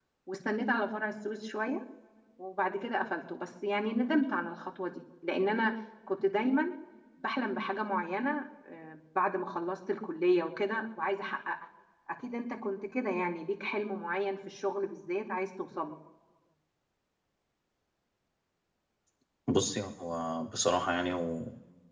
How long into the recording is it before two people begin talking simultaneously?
none

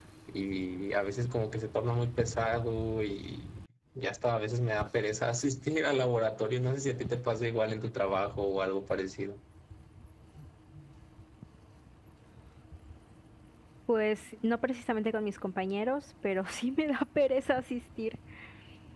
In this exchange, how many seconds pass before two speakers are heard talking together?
none

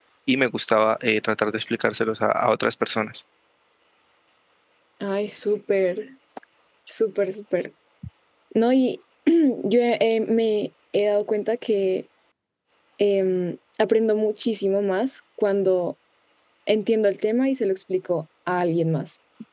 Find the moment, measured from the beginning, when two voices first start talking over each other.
none

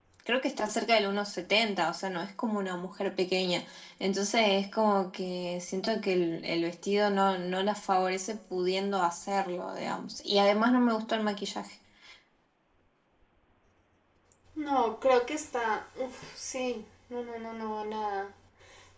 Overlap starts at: none

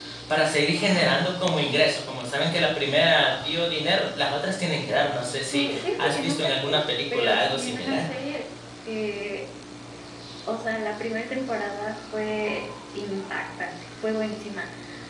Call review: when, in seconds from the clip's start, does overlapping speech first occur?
5.5 s

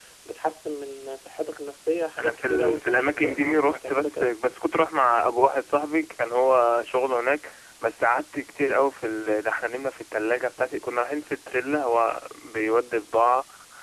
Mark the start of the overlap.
2.2 s

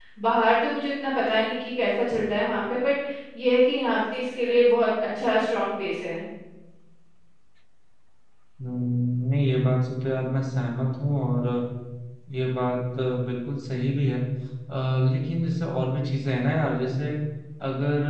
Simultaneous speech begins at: none

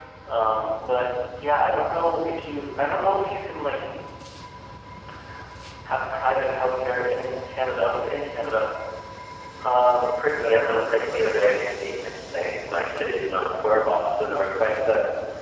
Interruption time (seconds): 10.1 s

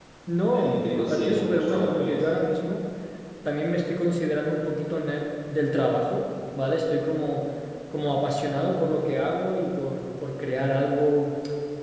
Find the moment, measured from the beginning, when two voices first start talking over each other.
0.5 s

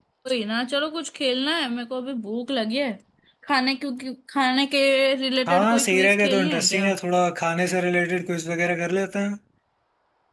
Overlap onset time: 5.5 s

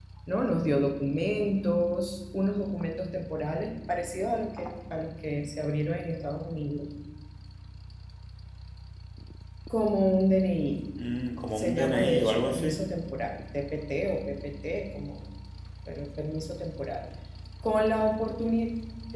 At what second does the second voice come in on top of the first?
11.6 s

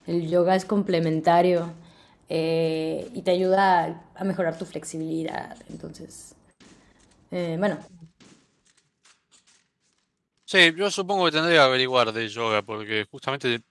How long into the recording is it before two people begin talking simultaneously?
none

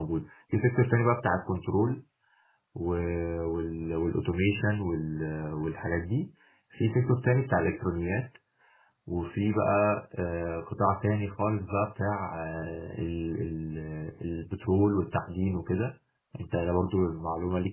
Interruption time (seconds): none

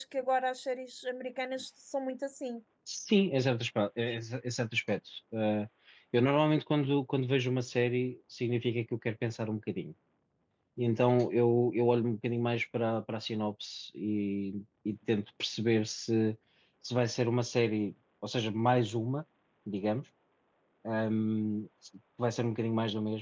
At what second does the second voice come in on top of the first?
none

